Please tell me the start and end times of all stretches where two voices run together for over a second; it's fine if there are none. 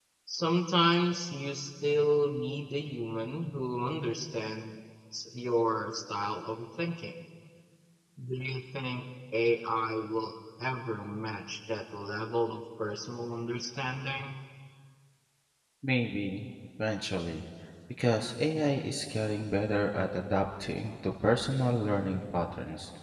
none

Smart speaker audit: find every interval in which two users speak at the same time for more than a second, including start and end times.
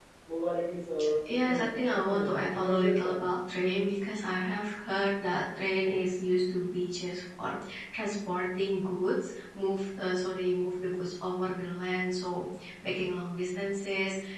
1.3-3.2

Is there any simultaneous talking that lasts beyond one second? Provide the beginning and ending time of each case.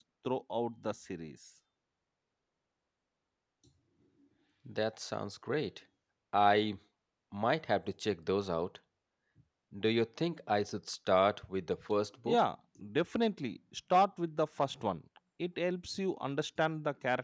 none

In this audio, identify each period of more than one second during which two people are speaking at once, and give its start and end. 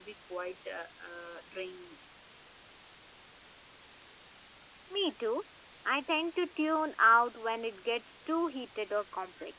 none

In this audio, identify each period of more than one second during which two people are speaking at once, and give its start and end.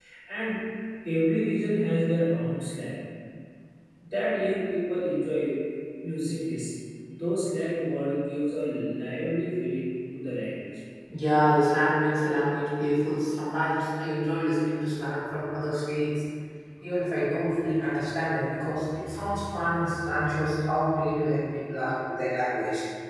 none

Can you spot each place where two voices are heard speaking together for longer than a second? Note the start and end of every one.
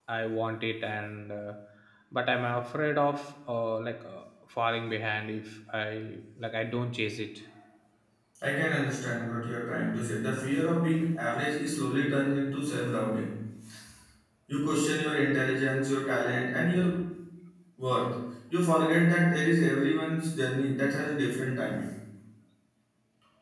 none

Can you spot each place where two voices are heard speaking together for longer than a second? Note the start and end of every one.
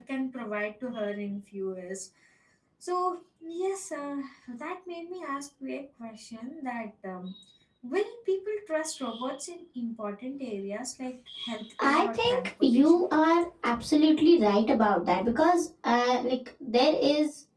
11.8-13.0

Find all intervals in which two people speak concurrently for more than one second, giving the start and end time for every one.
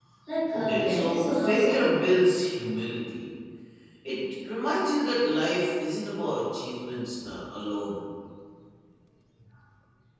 0.5-2.0

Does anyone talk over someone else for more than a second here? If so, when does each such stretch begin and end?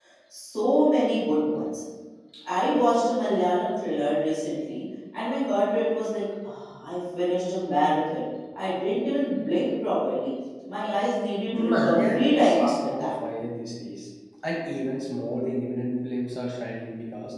11.5-13.1

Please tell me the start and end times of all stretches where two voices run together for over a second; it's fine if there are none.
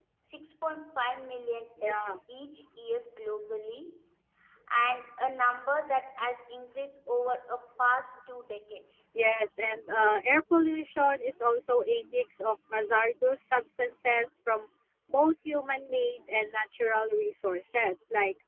none

